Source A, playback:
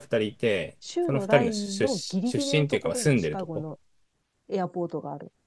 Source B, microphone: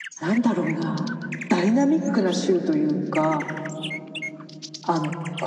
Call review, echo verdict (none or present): none